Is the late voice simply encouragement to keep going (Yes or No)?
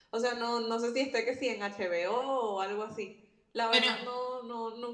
Yes